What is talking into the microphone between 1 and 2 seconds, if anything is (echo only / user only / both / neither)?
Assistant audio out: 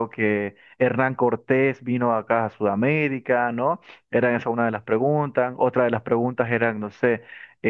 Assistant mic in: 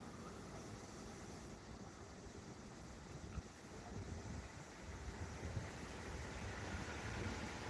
neither